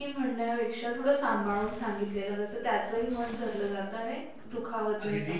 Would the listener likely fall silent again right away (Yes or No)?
No